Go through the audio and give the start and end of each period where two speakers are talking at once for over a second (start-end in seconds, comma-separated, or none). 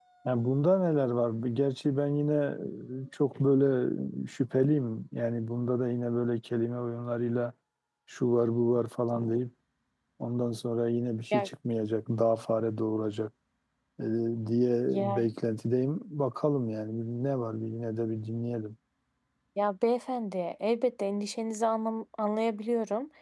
none